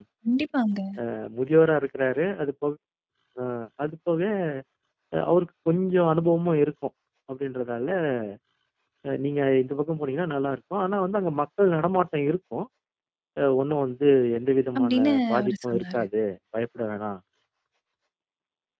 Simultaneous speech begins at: 14.8 s

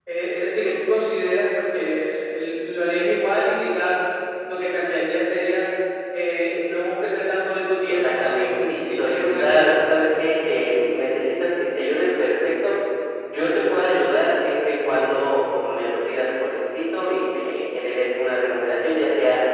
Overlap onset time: 7.9 s

